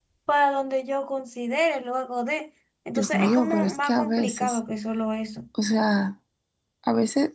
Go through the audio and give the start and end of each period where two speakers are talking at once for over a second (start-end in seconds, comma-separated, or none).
3.0-4.6